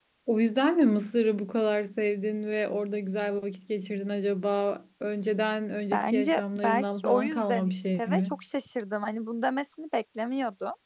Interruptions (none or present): present